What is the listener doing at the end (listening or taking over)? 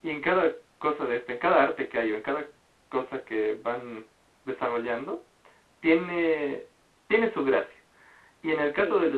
listening